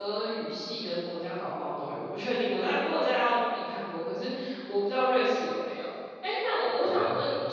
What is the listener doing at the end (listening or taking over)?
listening